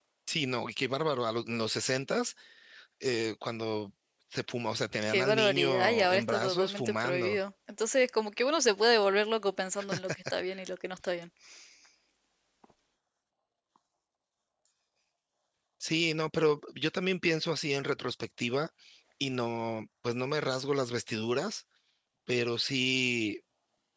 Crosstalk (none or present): present